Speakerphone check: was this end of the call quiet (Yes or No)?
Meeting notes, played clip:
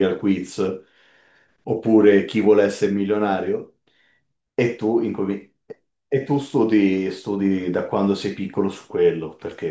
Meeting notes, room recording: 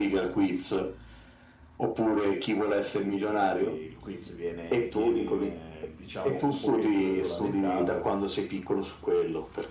No